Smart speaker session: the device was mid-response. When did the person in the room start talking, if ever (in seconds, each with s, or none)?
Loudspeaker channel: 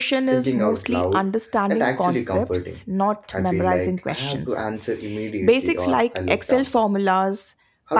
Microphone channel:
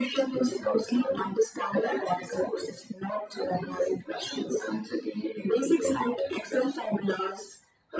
none